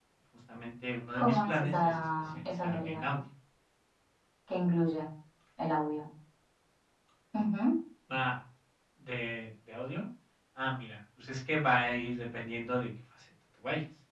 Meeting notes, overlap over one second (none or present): present